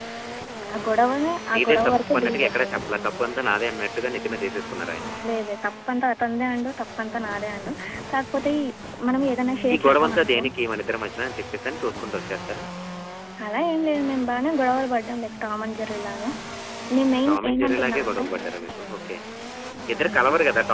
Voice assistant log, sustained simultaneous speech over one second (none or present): present